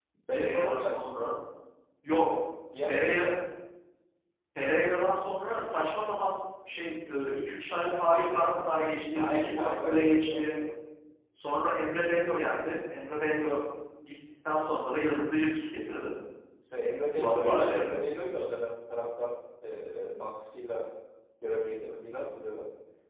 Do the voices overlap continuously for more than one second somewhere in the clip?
Yes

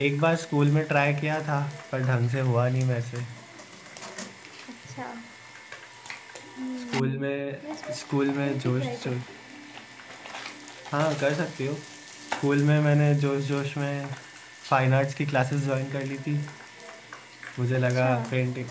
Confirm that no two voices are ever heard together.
No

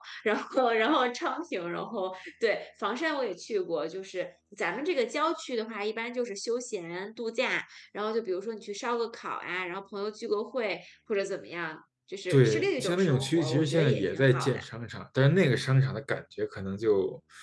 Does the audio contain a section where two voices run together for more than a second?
Yes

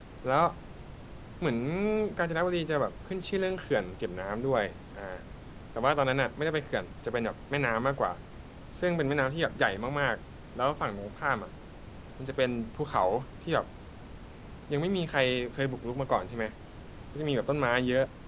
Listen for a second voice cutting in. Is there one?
No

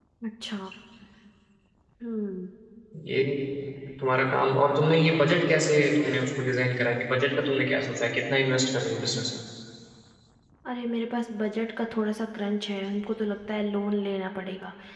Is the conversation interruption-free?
Yes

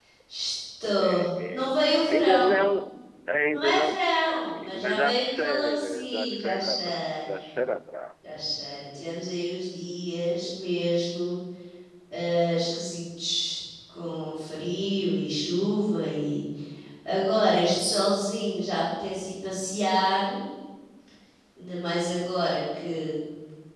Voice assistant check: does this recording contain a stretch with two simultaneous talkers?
Yes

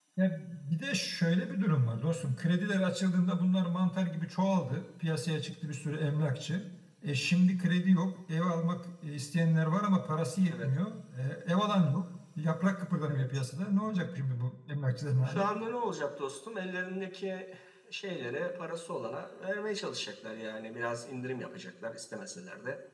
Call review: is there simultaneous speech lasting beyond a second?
No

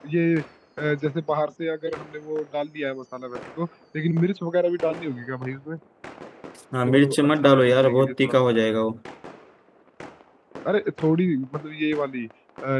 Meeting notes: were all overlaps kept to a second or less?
No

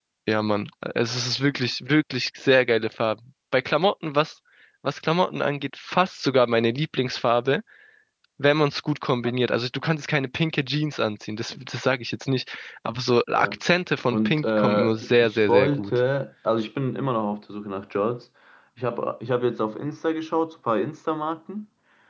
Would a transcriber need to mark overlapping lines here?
Yes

